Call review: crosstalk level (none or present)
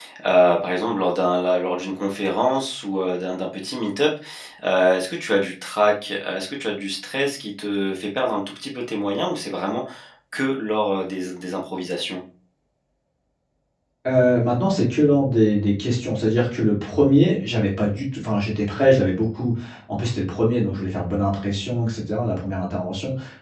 none